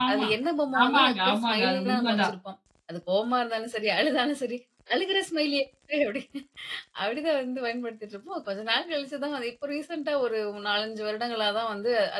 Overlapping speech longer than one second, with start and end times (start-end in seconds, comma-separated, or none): 0.8-2.3